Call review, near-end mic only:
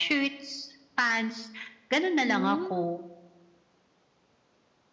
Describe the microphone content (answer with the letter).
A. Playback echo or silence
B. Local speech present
B